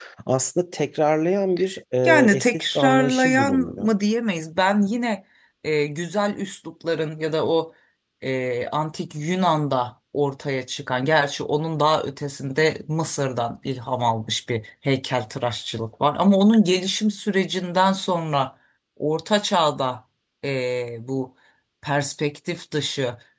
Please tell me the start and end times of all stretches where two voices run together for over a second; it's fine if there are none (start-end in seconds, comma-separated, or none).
2.0-3.9